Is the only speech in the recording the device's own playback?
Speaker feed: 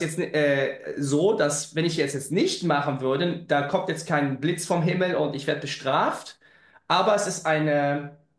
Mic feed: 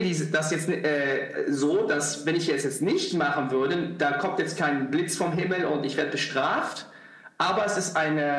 Yes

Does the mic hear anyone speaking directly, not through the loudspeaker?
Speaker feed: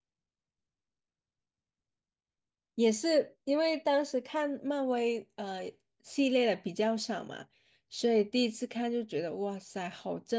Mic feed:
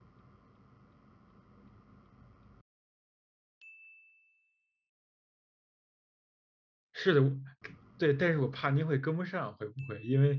Yes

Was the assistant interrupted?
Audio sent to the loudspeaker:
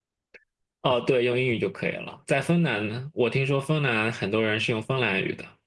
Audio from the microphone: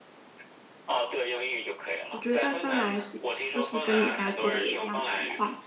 Yes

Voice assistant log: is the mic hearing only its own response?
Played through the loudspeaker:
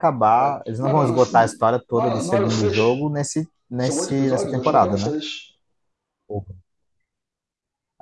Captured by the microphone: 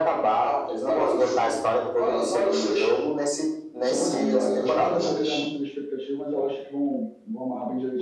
No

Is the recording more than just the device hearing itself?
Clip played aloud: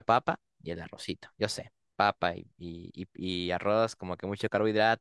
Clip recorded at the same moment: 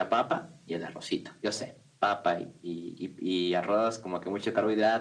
No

